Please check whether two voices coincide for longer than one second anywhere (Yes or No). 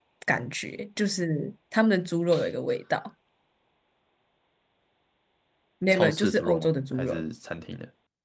Yes